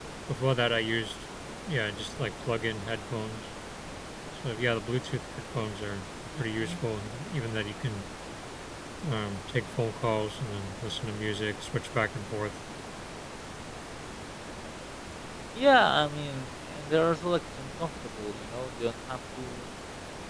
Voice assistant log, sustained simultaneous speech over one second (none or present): none